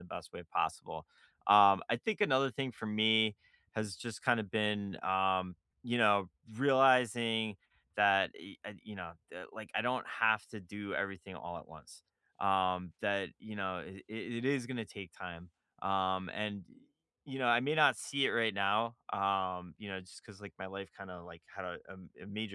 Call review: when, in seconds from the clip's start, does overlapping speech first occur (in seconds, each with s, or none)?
none